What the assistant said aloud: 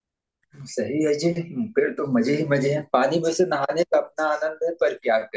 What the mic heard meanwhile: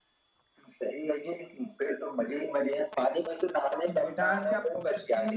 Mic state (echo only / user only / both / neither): both